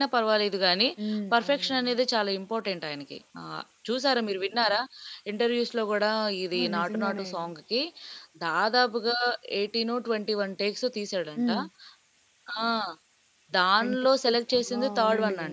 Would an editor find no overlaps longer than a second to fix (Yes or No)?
No